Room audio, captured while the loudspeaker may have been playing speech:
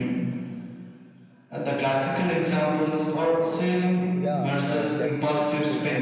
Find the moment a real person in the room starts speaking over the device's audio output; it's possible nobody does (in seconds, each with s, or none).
4.1 s